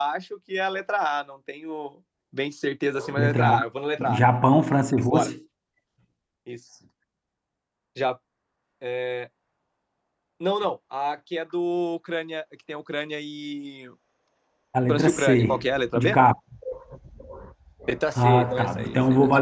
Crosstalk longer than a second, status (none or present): present